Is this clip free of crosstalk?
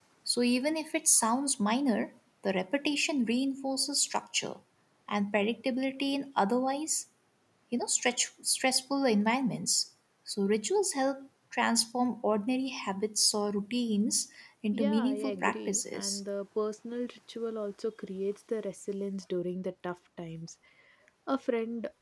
No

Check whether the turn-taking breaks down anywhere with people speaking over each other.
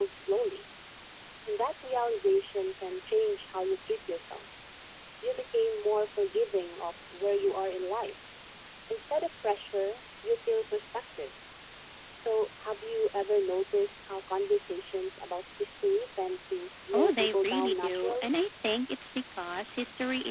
Yes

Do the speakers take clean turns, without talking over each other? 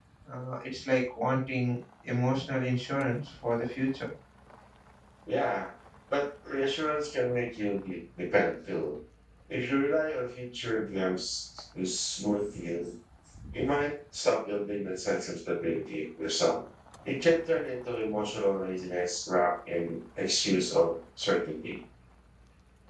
Yes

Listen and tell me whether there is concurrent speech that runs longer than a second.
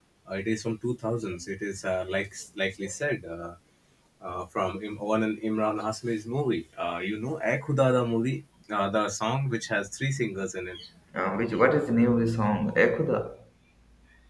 No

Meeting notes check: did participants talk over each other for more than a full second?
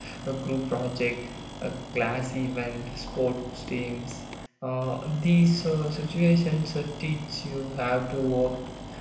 No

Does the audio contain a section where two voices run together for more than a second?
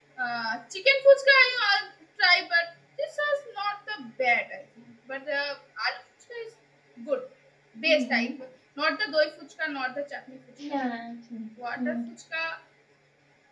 No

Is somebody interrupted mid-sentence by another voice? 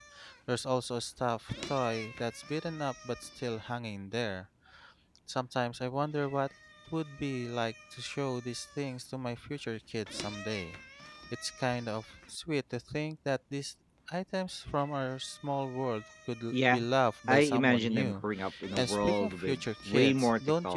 Yes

